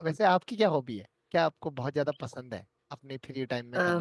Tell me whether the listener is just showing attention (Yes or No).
No